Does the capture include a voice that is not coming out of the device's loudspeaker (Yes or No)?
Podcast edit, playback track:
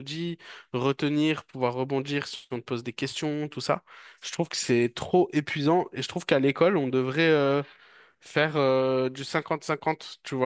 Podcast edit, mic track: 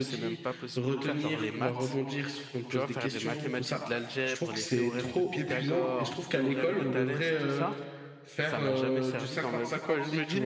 Yes